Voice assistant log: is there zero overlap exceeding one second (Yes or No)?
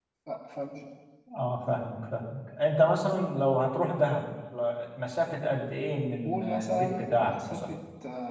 No